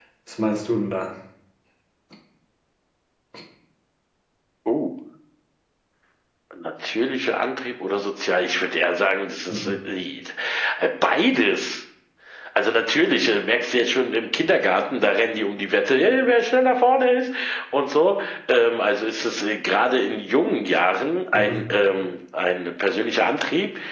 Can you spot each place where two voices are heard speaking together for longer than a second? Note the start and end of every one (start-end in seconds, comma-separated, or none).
none